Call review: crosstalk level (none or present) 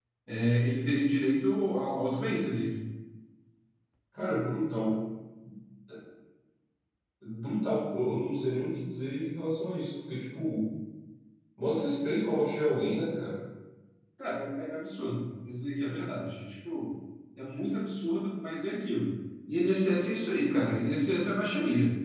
none